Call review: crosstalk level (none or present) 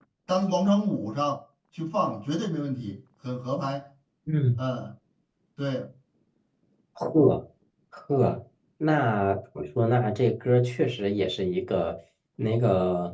none